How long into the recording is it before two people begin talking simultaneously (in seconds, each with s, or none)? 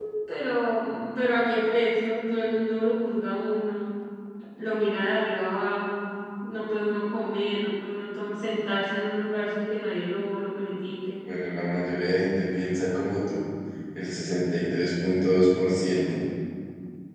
none